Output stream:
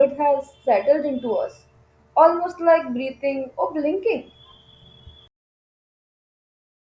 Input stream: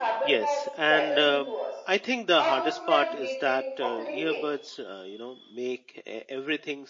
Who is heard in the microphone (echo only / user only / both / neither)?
both